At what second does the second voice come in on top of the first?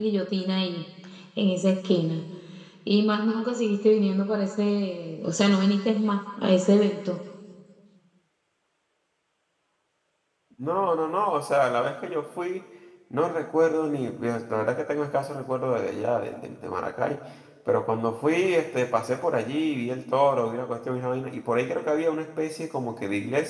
none

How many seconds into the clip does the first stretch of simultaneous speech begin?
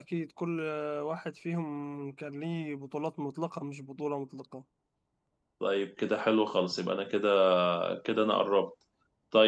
none

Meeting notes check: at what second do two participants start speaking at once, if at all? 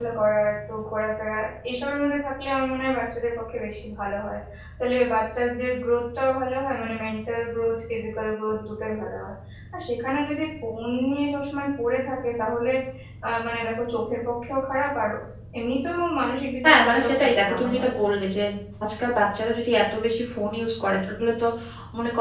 16.6 s

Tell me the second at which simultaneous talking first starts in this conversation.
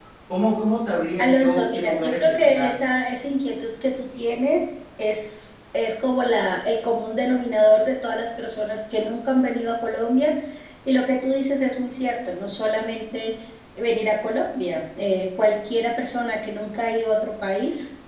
1.2 s

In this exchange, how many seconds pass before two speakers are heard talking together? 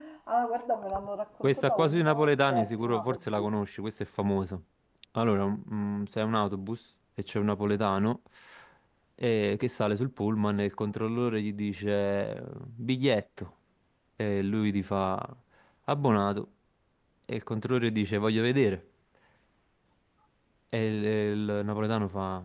1.4 s

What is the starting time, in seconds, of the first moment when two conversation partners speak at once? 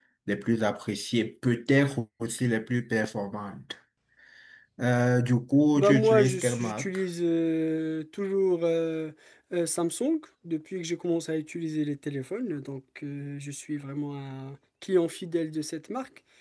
5.8 s

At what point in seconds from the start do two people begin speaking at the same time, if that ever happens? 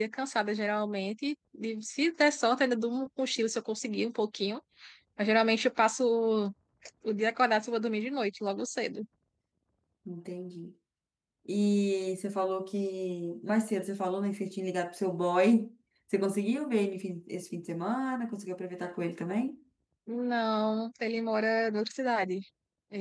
none

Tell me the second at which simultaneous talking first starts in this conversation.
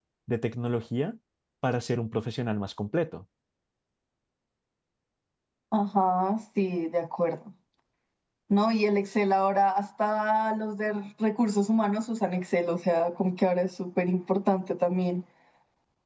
none

